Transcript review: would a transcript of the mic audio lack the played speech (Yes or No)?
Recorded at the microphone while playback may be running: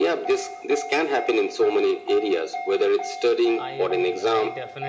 No